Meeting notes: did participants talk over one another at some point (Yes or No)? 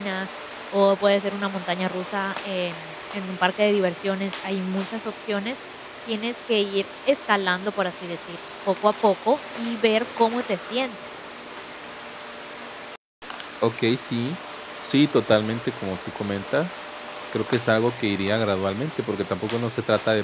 No